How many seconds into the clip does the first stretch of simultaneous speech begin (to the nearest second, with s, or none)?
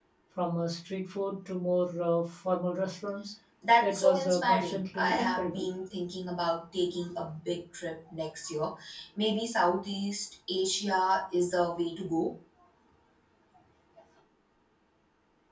4 s